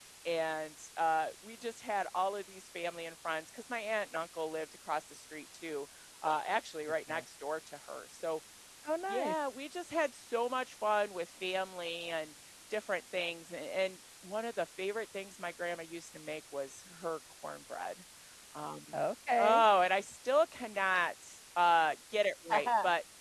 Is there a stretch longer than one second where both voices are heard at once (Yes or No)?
No